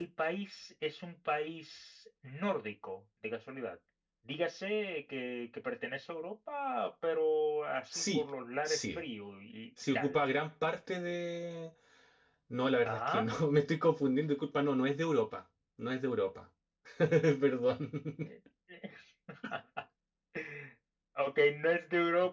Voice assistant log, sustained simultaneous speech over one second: none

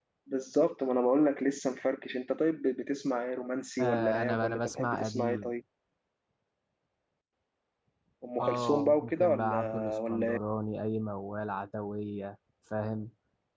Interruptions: present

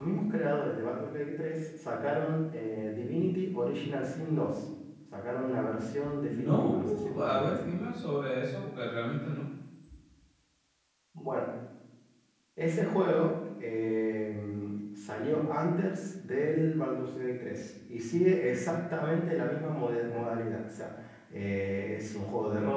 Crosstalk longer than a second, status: present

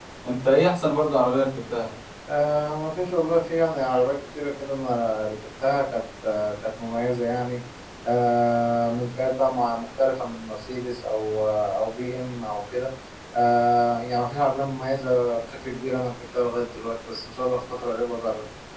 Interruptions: none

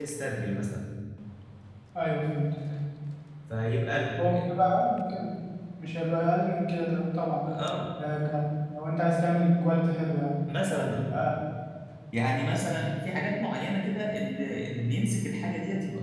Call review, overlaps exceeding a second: none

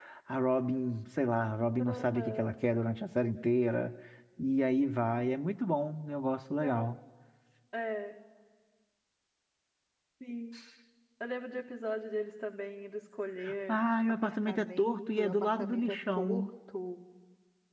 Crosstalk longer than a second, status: present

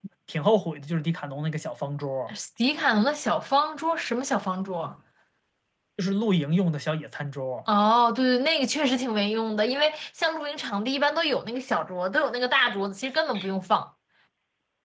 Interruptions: none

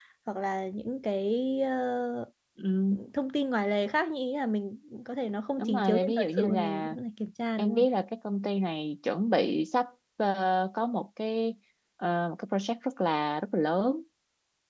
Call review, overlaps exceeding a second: present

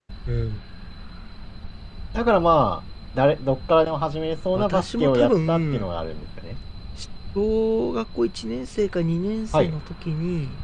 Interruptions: present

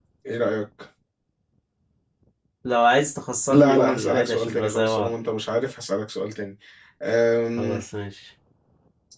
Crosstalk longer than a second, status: present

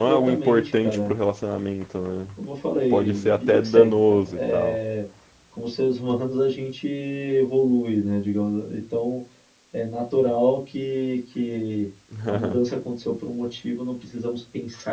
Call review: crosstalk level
present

